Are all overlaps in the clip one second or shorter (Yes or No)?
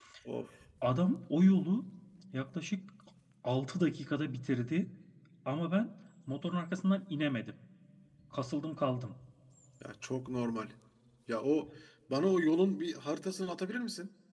Yes